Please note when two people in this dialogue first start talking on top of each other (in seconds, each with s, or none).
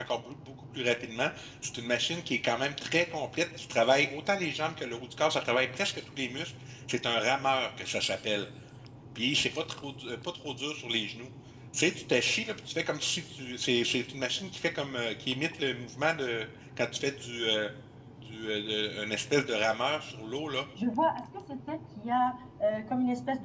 none